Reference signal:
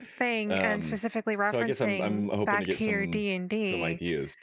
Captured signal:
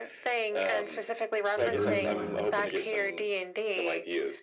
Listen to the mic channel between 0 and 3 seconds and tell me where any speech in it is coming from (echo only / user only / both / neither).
both